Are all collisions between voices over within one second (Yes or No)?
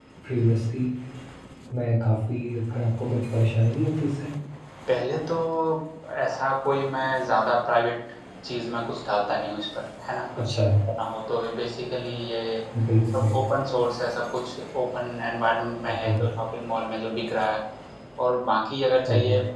Yes